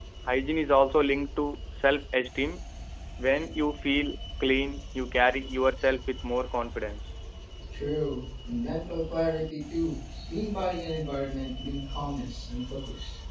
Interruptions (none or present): none